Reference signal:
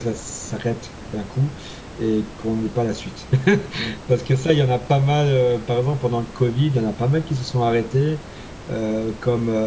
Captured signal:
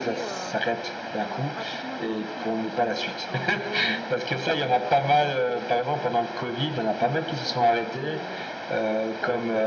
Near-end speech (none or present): present